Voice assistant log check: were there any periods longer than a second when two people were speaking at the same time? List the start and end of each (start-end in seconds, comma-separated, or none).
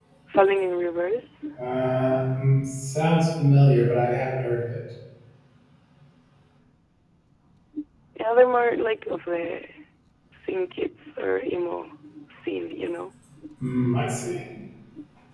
none